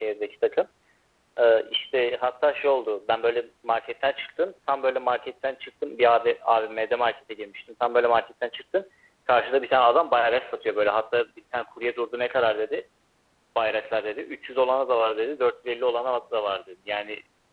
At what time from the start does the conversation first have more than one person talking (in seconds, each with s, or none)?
none